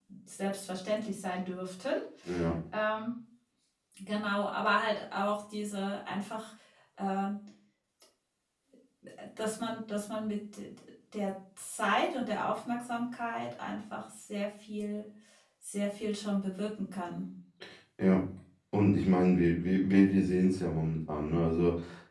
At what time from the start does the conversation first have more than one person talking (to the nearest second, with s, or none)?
none